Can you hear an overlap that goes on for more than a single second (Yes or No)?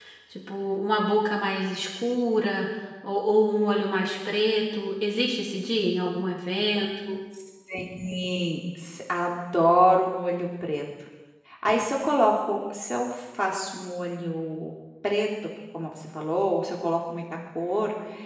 No